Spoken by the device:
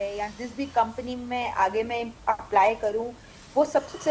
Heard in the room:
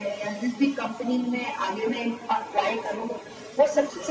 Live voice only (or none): none